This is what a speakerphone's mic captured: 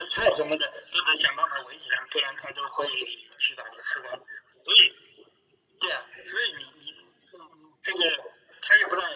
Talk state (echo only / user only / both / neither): echo only